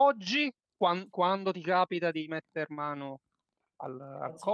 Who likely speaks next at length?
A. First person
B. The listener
A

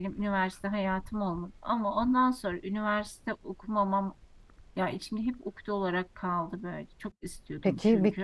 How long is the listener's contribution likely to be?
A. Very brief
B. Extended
B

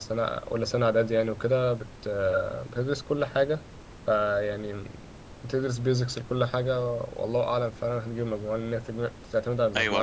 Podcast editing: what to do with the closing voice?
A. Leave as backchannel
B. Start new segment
B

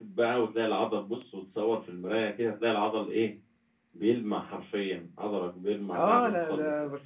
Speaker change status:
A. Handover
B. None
A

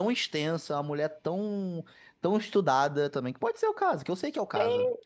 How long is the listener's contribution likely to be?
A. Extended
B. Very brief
A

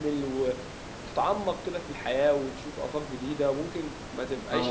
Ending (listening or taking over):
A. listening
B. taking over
A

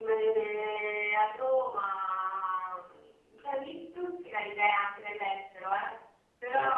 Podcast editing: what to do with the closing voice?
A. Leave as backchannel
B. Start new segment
A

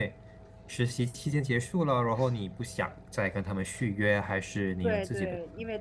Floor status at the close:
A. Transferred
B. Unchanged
A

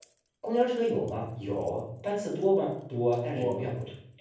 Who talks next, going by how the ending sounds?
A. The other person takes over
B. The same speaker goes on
B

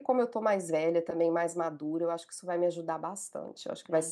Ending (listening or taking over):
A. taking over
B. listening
A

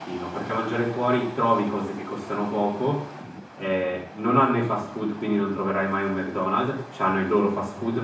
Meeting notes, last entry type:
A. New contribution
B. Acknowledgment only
B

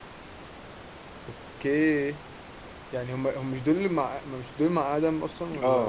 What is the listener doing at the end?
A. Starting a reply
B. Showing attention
A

